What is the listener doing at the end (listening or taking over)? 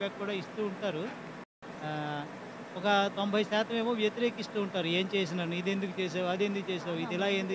taking over